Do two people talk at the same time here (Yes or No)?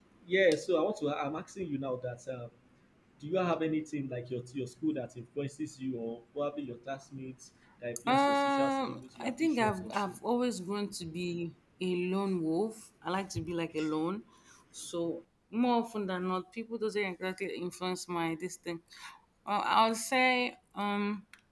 Yes